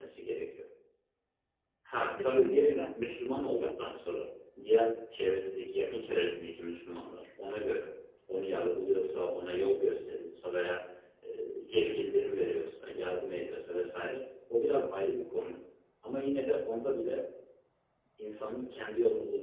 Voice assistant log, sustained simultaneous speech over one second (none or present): present